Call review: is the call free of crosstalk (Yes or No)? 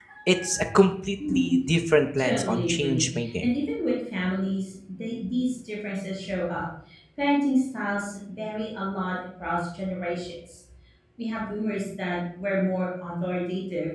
No